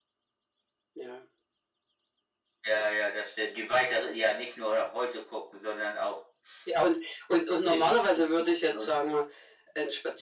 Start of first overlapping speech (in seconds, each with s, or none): 7.7 s